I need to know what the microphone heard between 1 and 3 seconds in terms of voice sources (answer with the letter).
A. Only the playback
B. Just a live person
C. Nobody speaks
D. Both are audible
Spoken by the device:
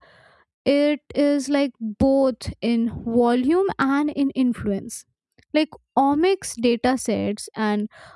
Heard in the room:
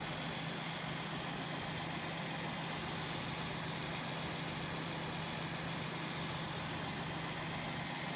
C